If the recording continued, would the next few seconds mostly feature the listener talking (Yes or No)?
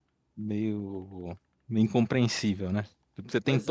No